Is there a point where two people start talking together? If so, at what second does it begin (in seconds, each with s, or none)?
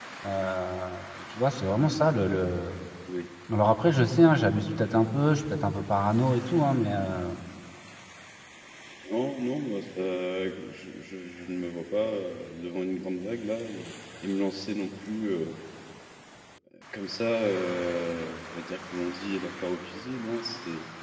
none